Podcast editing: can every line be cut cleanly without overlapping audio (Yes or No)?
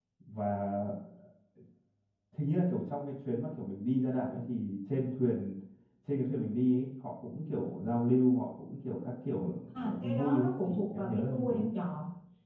No